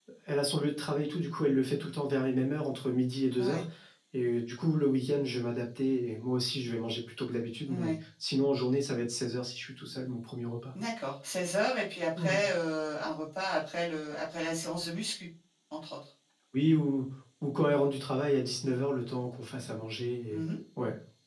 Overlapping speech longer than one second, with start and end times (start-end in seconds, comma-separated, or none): none